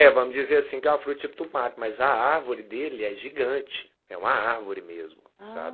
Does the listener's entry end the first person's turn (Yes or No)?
Yes